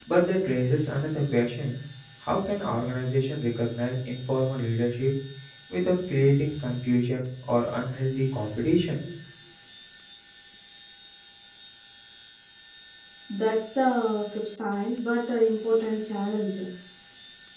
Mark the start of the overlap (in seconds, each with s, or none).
none